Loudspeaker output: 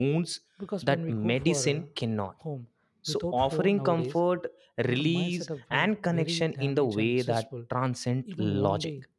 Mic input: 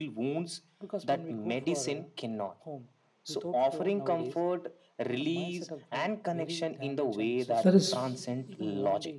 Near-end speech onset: 7.6 s

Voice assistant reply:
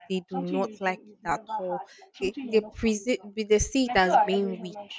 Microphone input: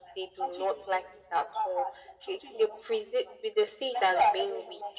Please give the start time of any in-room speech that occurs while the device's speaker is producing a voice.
none

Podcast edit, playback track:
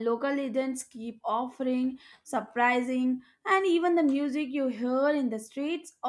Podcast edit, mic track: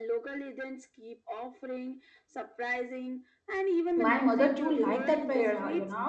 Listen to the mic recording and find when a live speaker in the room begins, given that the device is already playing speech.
3.9 s

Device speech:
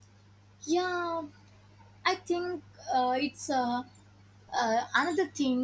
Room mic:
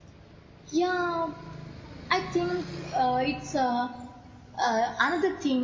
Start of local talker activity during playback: none

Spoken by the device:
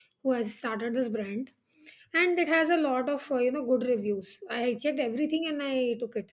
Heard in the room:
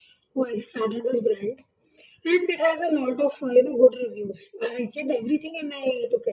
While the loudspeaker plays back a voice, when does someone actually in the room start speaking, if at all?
none

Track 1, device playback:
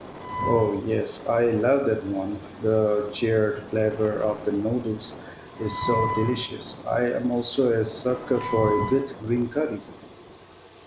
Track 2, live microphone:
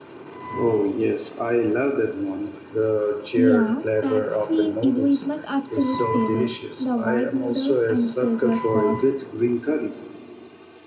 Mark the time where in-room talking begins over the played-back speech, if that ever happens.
3.3 s

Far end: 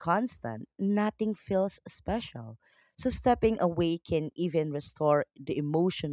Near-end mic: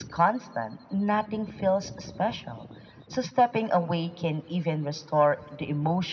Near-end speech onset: none

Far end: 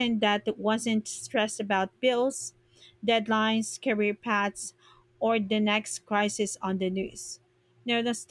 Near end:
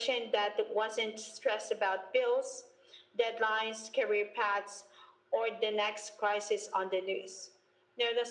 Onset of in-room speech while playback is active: none

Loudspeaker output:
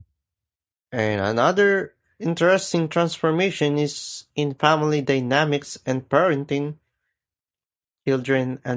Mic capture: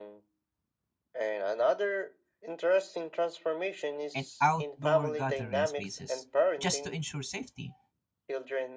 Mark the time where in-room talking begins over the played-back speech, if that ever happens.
4.1 s

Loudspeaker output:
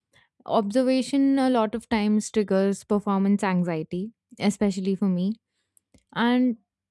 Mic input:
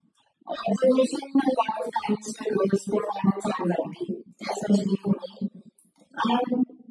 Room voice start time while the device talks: none

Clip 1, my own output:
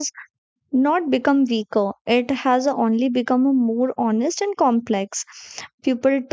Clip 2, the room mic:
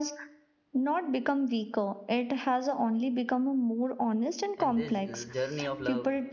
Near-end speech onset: 4.6 s

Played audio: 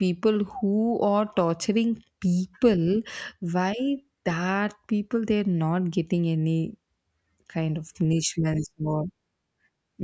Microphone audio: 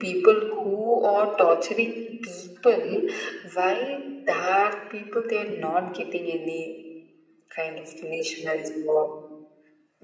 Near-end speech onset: none

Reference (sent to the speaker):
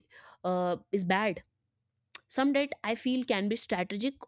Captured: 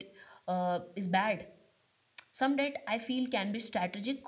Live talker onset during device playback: none

